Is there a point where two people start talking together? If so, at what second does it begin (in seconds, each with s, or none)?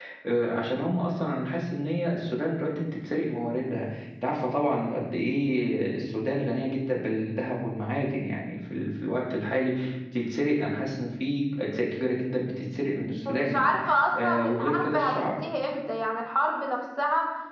13.2 s